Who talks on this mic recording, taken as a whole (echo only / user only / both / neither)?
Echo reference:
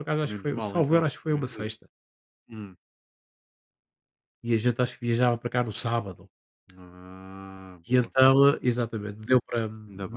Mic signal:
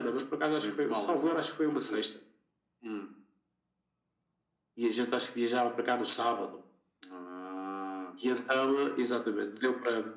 echo only